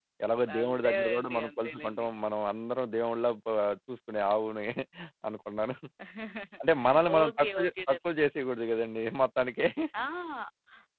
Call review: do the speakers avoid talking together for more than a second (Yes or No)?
No